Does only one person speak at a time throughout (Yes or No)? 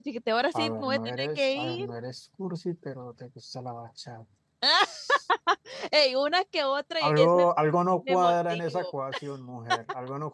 No